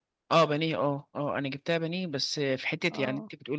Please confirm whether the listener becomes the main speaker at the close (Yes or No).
No